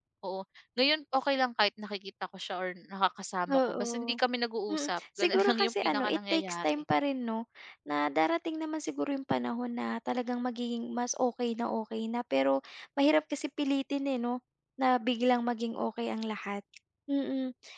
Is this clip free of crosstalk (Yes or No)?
No